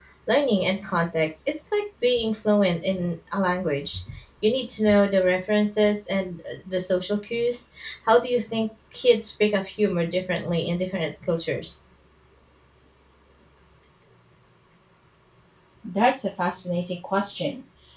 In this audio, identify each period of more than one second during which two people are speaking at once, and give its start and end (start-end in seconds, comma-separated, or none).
none